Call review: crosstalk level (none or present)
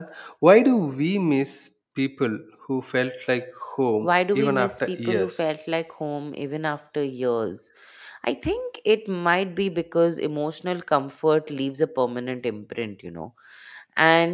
present